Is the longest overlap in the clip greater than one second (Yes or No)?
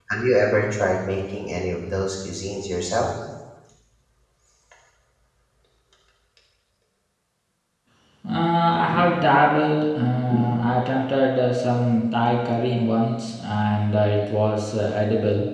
No